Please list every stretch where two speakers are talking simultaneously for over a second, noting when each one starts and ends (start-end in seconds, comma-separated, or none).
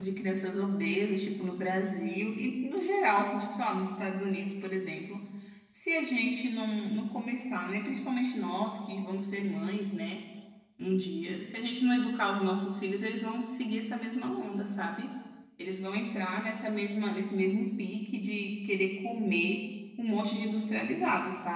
none